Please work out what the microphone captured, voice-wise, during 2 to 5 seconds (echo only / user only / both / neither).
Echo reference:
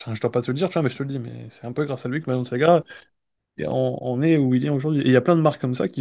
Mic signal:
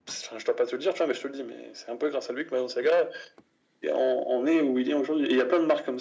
echo only